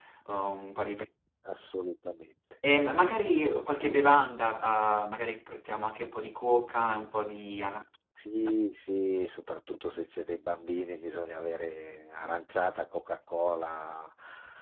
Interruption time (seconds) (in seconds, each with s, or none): none